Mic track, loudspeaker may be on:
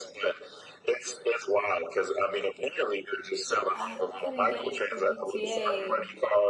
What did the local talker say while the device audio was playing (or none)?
I couldn't get into GTA.